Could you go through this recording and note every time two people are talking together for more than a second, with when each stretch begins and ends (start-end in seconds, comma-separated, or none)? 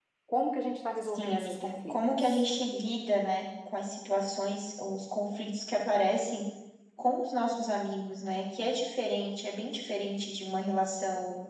1.2-2.4